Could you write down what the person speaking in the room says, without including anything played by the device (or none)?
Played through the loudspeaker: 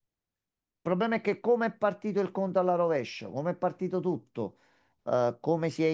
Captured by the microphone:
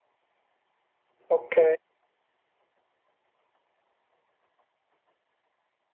Ok.